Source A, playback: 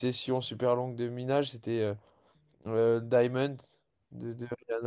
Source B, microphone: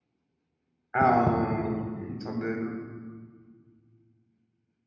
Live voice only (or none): Ah, on... une sorte de.